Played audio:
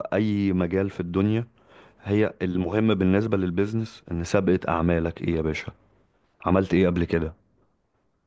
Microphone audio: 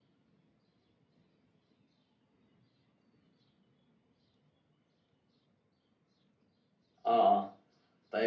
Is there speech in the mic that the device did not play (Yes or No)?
Yes